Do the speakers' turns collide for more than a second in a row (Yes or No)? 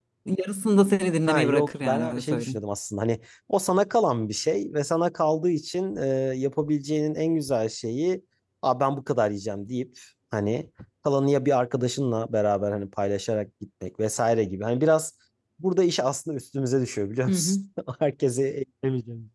Yes